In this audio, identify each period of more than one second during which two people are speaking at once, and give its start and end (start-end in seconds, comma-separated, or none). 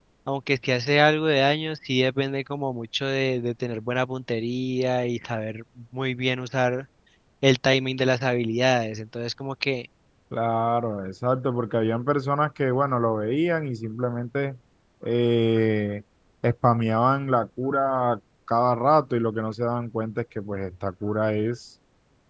none